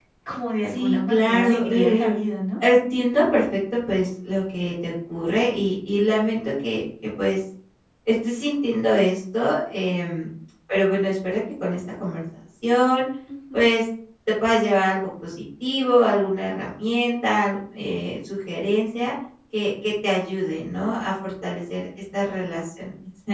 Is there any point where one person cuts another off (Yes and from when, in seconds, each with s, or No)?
Yes, from 0.7 s